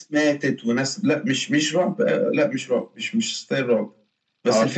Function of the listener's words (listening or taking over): listening